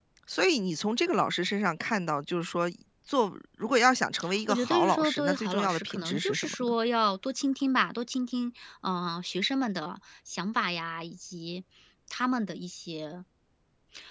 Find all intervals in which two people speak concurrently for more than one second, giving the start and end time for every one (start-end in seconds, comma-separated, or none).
4.5-6.7